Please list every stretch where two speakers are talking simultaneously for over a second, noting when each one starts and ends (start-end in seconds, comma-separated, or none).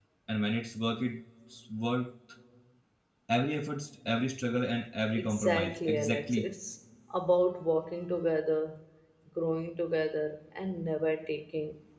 5.2-6.5